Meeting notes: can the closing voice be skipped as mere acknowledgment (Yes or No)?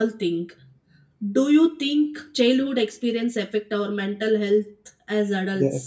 No